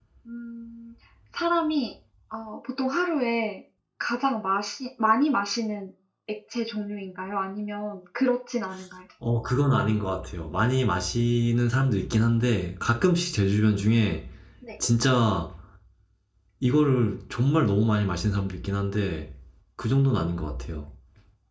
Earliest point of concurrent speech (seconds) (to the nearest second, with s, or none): none